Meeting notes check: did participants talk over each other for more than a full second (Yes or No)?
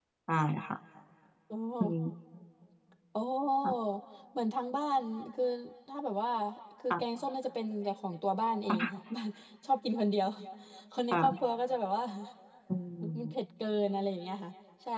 No